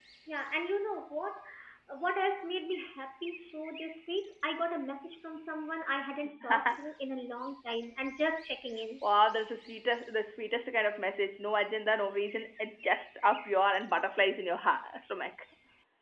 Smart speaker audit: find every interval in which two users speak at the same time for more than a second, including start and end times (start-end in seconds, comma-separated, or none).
none